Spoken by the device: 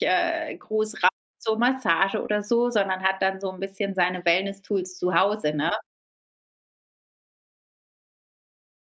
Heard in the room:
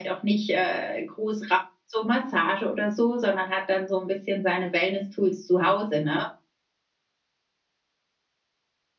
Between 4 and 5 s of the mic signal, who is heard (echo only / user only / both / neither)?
echo only